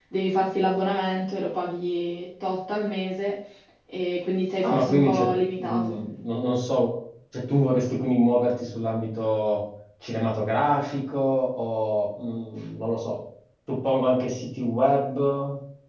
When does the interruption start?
4.6 s

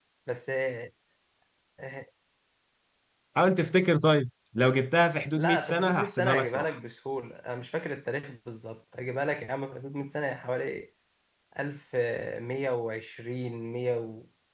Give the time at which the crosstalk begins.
5.3 s

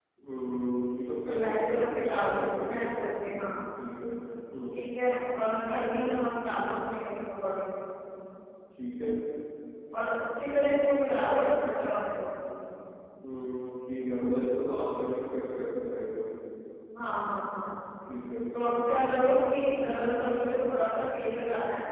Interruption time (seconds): 1.3 s

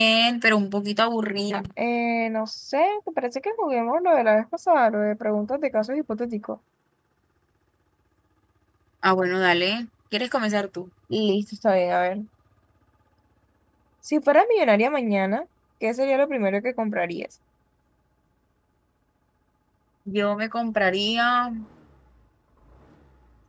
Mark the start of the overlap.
none

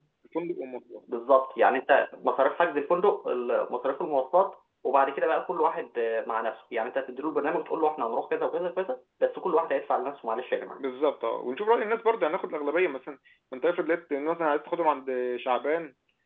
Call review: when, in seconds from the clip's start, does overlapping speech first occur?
none

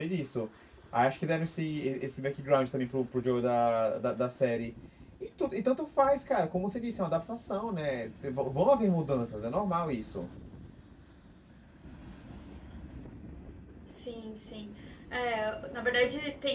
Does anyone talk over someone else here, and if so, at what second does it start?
none

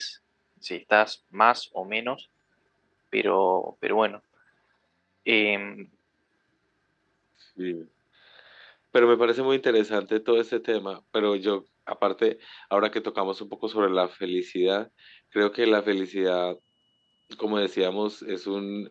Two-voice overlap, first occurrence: none

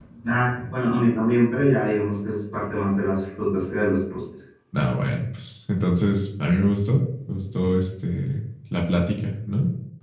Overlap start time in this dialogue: none

